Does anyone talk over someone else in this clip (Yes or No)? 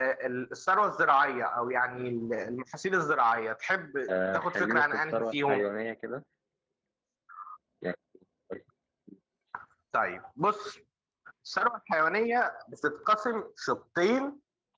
Yes